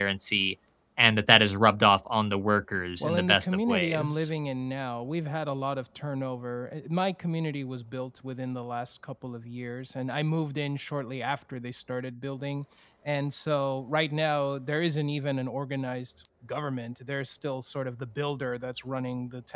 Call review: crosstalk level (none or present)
present